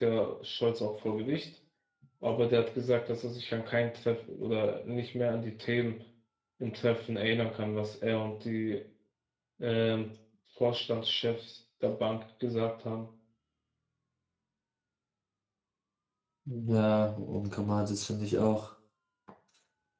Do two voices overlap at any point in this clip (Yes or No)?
No